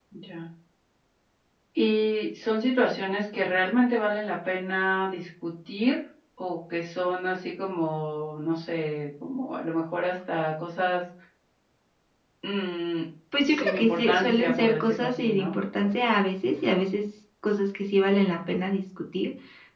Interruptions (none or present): present